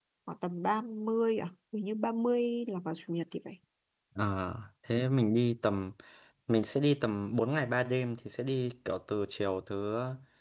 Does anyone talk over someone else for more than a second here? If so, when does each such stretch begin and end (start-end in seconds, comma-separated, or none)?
none